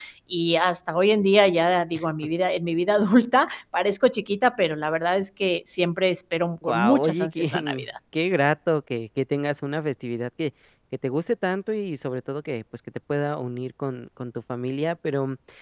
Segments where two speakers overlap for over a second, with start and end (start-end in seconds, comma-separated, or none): 6.7-7.9